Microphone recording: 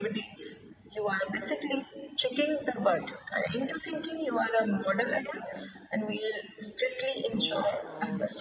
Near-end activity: present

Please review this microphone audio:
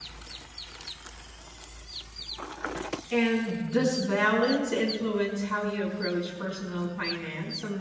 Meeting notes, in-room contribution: present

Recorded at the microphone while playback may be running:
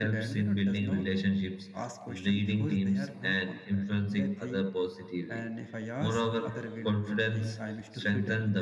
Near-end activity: none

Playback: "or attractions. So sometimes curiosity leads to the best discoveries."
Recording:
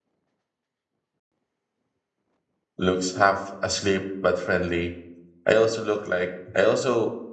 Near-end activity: present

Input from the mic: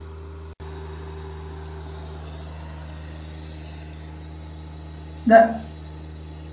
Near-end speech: present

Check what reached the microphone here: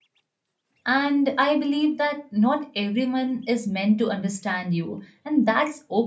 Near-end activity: present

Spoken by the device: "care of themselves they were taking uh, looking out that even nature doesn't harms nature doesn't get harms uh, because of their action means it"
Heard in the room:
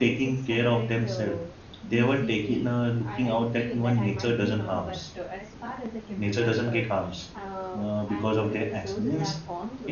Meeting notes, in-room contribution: present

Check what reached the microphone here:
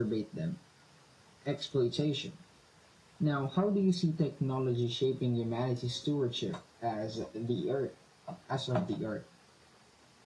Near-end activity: none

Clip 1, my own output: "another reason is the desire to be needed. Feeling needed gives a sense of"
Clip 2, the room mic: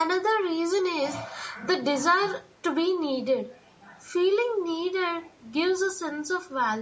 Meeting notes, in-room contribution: none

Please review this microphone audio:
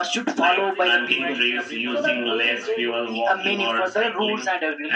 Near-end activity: present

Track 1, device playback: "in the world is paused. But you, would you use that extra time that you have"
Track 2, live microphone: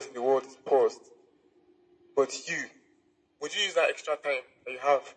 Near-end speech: none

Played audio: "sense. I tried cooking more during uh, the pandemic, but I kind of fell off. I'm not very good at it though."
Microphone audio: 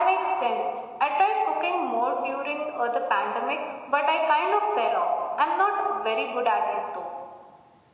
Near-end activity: none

